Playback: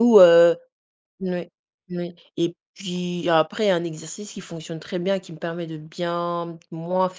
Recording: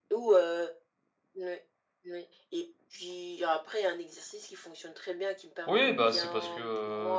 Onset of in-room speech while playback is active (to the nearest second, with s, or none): 6 s